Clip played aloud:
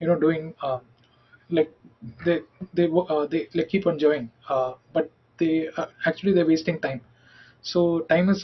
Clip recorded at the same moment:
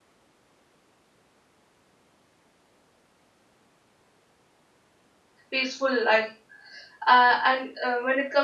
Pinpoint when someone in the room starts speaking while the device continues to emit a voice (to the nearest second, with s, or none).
6 s